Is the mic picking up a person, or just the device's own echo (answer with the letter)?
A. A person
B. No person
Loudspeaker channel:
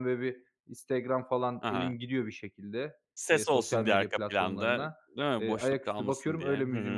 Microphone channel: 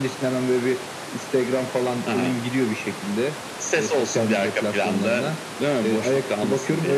B